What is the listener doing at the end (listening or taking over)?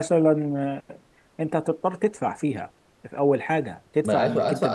taking over